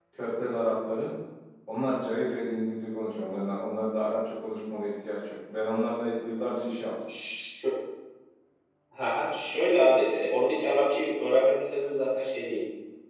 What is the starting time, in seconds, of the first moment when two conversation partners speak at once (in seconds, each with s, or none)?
none